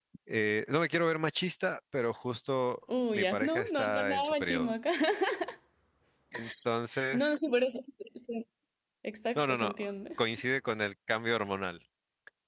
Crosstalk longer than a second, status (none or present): present